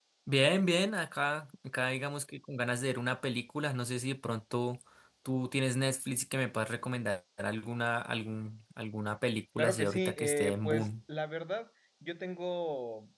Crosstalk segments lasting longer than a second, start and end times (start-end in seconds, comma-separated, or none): 9.6-10.9